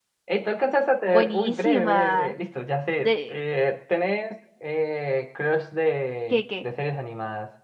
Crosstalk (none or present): present